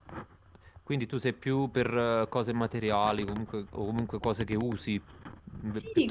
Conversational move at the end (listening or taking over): taking over